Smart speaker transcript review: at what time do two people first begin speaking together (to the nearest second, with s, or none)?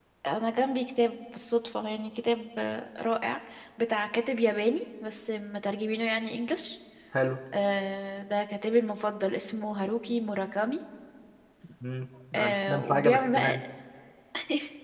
12 s